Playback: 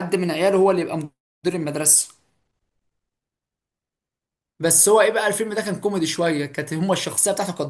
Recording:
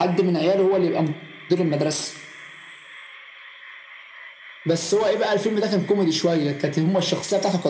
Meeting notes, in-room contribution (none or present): none